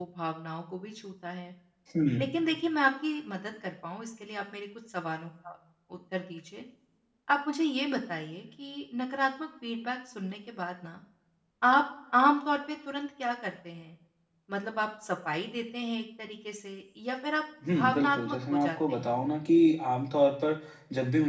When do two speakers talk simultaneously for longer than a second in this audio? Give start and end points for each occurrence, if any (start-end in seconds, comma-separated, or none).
17.7-19.1